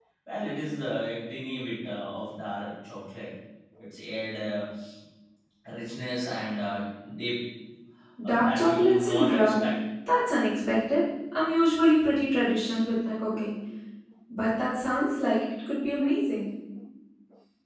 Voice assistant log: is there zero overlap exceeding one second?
No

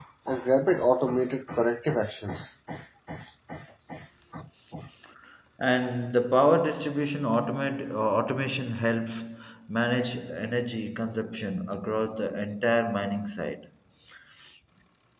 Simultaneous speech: No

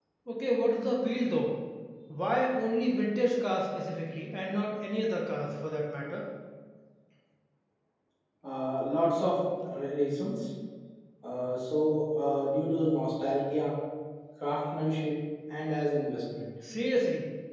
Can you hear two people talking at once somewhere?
No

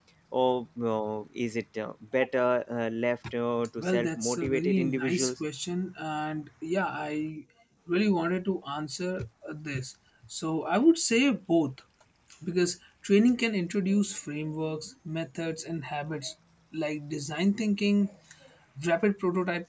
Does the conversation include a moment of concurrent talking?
Yes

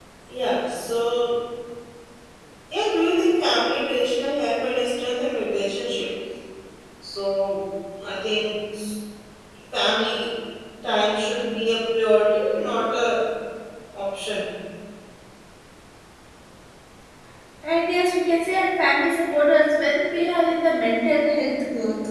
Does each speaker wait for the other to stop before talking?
Yes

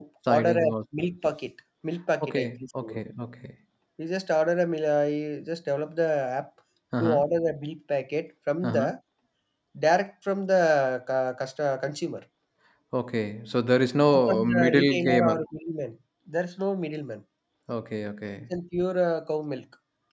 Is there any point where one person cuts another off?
Yes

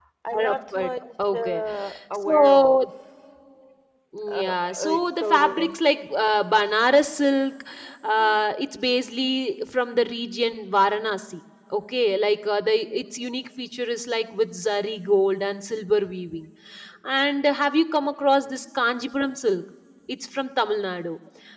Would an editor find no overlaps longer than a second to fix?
No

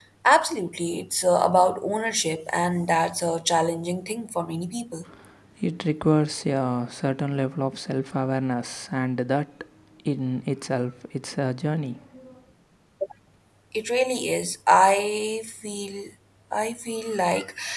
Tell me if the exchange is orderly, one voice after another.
Yes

